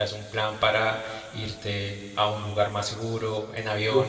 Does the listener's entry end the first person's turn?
Yes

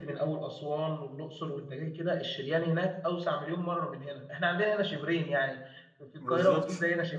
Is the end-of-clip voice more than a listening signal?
No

